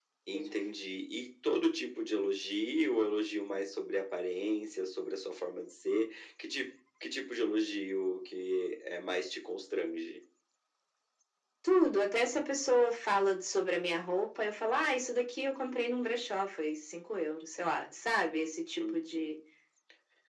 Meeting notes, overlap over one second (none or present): none